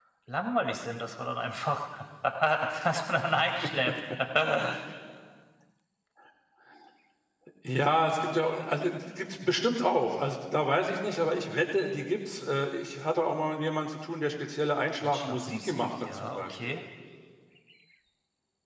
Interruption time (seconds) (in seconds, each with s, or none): 15.0 s